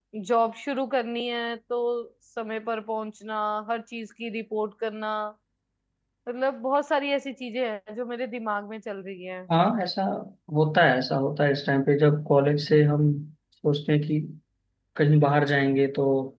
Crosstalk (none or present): none